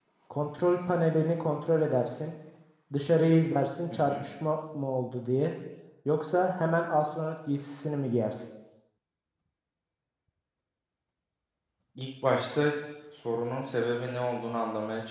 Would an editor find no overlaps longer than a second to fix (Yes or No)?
Yes